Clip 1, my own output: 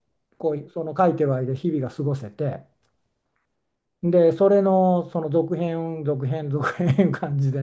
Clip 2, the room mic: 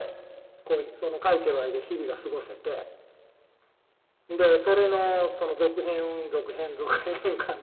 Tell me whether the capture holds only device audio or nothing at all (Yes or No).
Yes